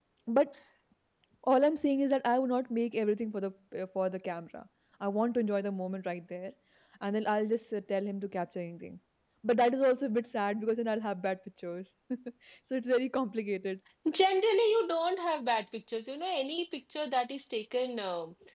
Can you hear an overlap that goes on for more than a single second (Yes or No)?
No